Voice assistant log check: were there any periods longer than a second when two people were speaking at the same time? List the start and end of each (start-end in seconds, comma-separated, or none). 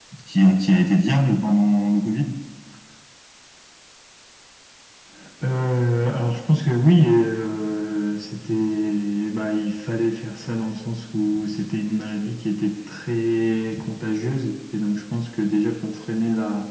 none